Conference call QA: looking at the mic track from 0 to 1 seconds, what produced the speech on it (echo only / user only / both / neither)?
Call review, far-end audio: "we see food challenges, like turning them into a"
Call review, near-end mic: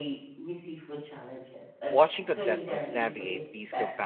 echo only